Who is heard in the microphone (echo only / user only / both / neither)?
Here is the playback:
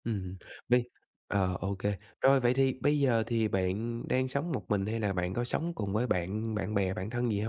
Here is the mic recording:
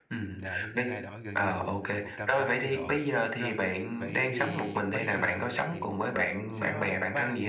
both